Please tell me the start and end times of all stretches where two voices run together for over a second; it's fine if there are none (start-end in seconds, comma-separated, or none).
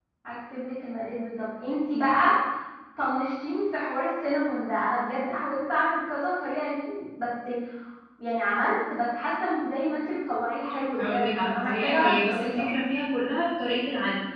11.0-12.7